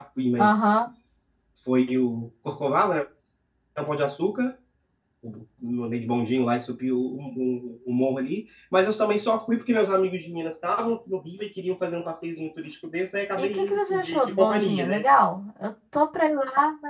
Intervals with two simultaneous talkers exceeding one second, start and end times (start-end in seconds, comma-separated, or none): 13.4-15.0